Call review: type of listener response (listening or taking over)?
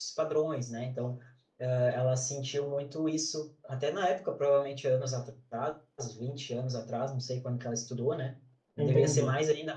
listening